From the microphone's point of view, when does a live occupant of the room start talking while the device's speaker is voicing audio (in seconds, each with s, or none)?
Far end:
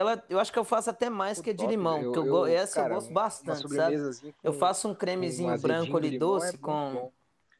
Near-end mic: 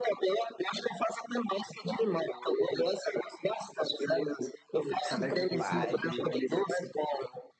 5.1 s